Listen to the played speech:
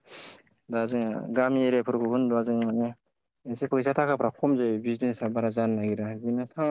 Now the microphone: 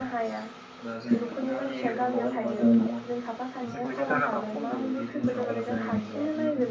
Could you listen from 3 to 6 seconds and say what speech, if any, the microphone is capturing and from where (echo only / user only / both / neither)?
both